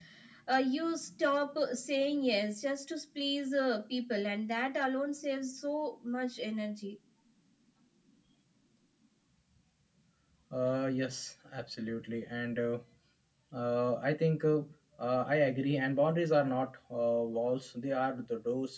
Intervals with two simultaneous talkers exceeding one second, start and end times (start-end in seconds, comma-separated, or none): none